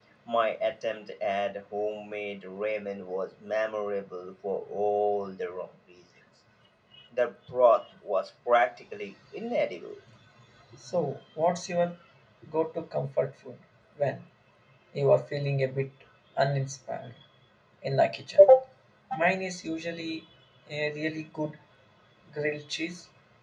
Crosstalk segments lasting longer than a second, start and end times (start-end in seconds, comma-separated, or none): none